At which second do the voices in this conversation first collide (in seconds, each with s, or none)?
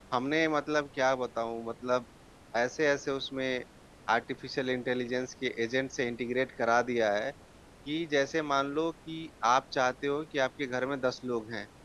none